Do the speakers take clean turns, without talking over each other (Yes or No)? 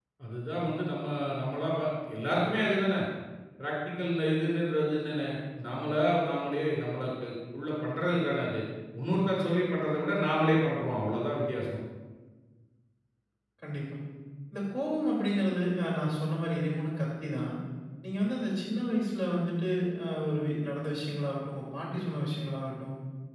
Yes